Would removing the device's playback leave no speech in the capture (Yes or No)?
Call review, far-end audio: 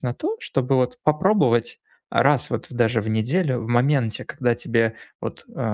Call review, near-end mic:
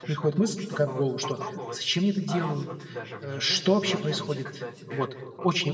No